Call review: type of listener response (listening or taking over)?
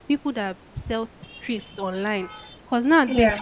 listening